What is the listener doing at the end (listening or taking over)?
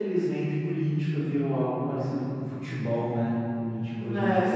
listening